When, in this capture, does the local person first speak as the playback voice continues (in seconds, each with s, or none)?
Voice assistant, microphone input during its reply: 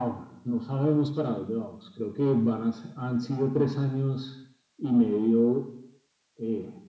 none